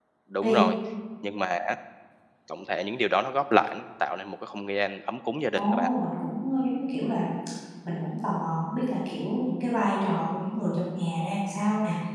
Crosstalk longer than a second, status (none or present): none